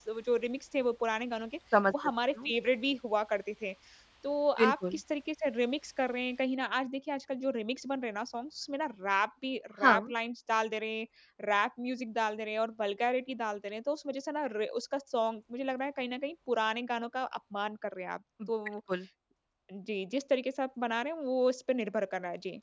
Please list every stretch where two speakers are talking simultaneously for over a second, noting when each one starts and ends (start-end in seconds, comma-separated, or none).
none